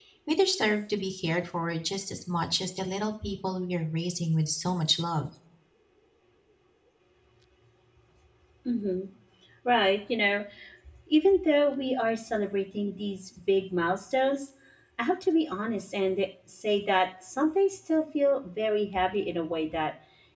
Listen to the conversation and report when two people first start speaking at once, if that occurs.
none

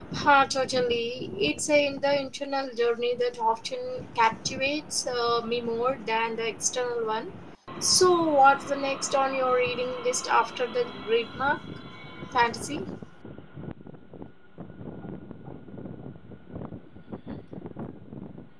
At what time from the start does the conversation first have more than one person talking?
none

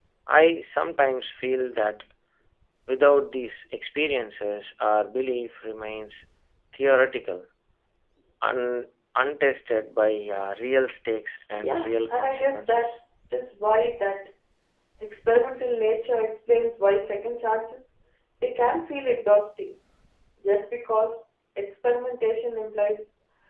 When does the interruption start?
11.6 s

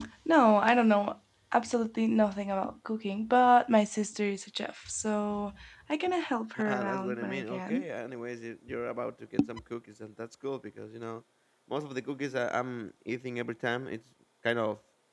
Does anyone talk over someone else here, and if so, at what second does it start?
6.6 s

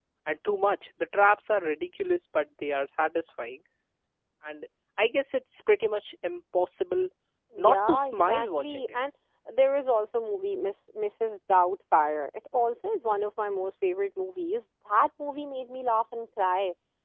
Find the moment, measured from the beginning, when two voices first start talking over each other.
7.6 s

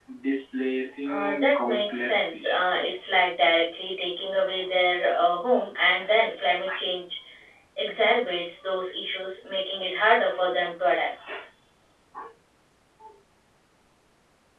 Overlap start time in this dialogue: 1.1 s

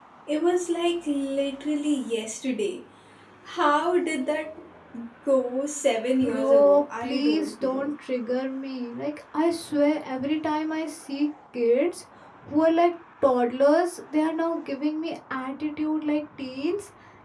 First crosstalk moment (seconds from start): 6.2 s

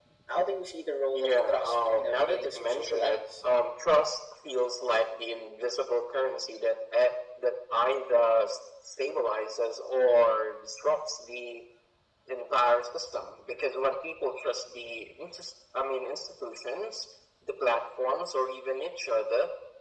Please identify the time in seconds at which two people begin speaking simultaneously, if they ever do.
1.1 s

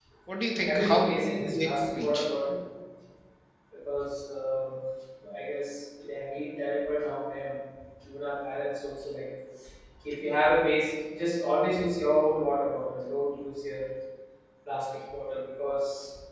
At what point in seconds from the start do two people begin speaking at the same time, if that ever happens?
0.7 s

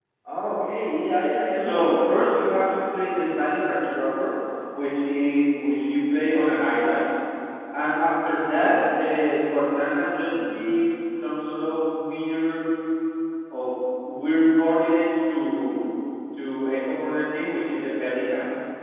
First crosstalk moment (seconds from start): 1.6 s

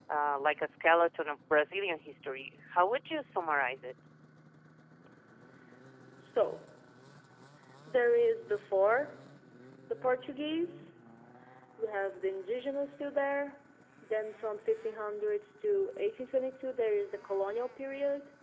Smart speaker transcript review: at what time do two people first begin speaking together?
none

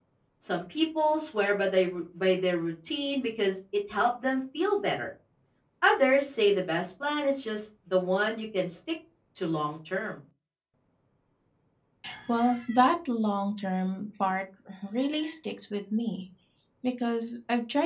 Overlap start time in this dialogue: none

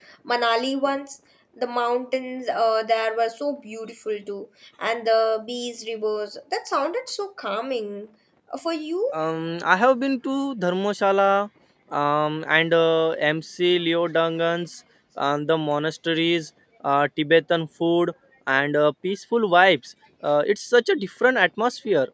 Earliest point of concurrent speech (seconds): none

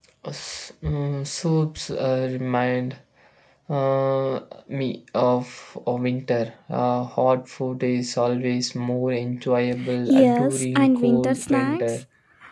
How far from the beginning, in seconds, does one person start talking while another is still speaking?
10.1 s

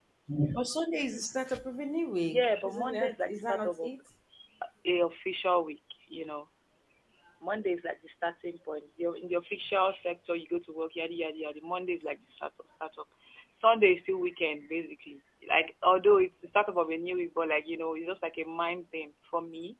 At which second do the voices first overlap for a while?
2.2 s

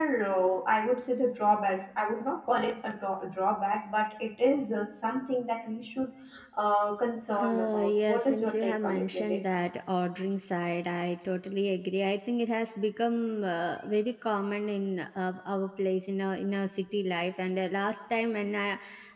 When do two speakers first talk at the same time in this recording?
7.3 s

